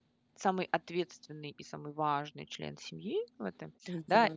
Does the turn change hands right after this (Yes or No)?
No